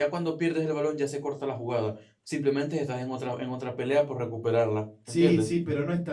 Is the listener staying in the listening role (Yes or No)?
No